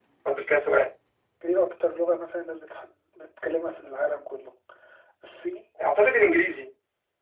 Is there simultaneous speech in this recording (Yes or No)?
No